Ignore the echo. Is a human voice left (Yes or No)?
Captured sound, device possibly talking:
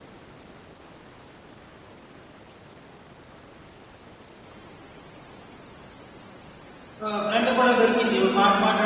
Yes